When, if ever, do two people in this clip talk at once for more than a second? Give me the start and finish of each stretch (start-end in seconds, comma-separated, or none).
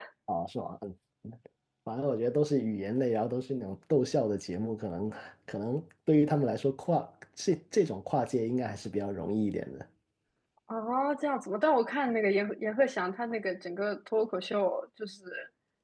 none